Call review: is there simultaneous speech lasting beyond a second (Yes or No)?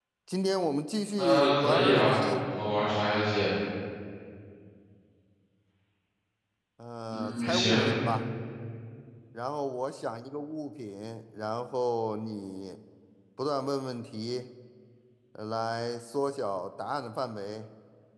Yes